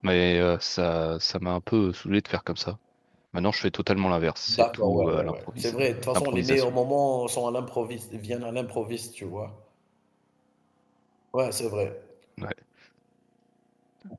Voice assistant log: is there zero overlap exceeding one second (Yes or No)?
No